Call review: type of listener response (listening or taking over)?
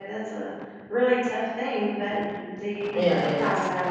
listening